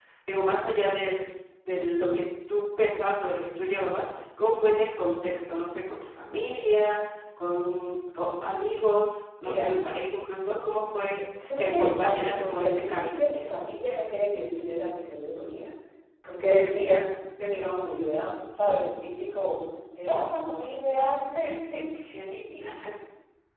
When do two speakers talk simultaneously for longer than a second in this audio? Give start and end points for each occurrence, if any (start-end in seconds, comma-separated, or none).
11.6-13.2